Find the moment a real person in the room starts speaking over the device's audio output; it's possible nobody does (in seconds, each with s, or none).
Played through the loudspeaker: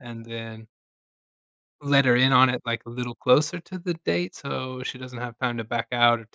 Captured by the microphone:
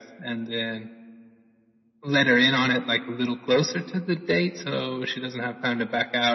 none